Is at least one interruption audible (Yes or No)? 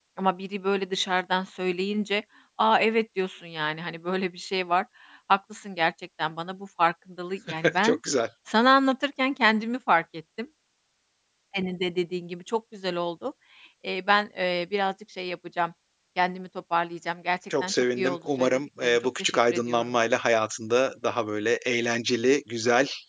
Yes